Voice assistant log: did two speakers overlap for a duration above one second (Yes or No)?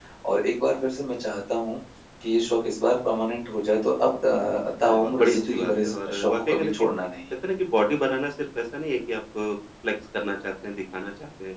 Yes